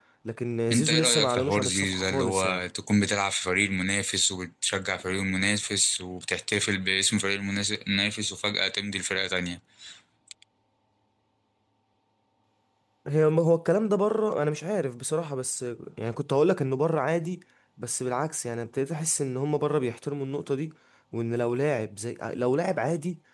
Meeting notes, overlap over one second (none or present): present